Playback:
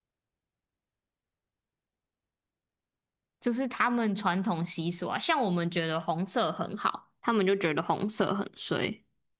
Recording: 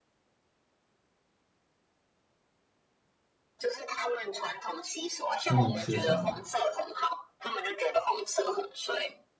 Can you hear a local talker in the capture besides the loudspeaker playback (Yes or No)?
Yes